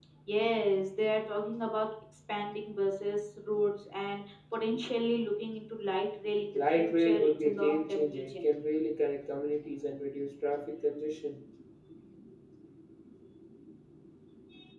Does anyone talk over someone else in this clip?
Yes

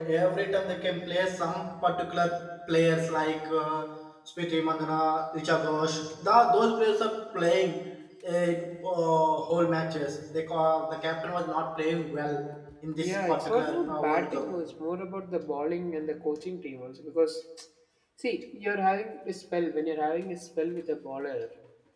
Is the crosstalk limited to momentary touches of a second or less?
No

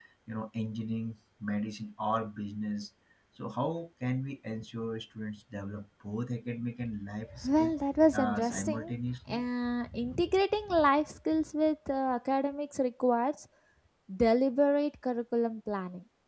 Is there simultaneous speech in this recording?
Yes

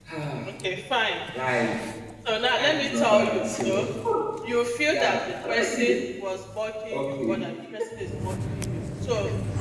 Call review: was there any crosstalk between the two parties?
Yes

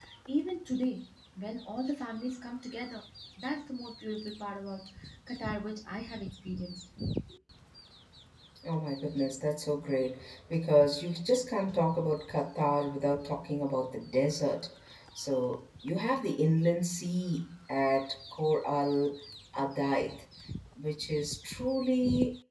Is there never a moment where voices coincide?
Yes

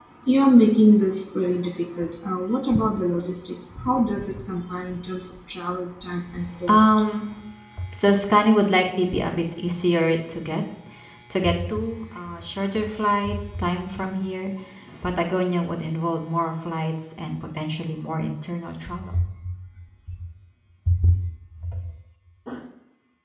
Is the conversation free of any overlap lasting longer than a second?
Yes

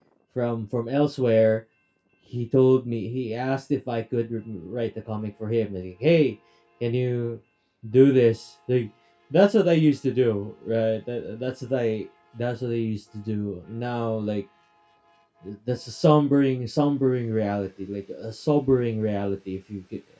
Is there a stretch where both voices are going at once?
No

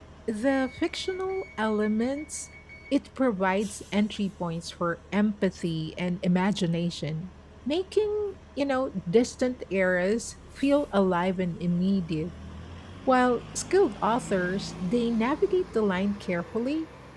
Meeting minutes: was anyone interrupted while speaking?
No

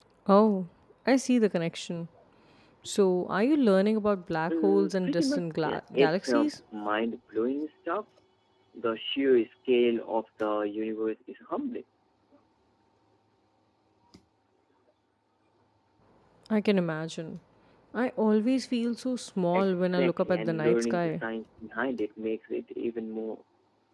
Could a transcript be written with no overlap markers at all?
No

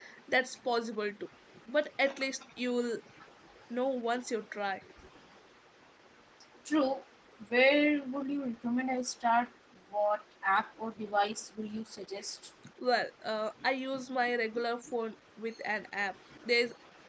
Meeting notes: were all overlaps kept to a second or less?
Yes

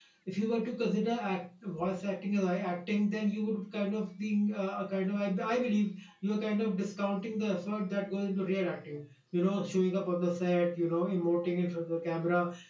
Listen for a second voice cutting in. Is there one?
No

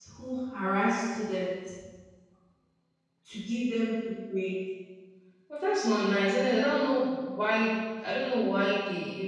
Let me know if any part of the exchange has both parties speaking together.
No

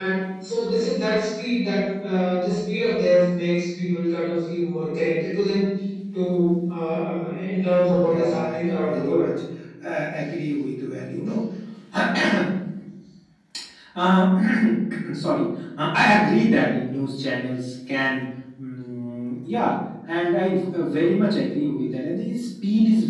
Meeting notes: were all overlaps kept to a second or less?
No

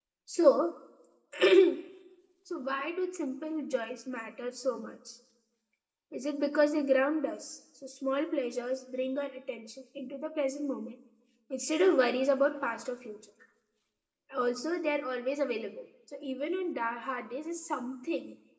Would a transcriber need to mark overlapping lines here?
No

